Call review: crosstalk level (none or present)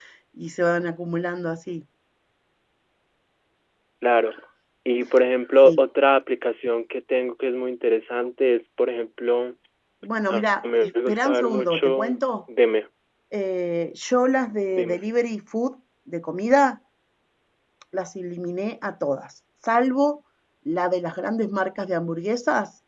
present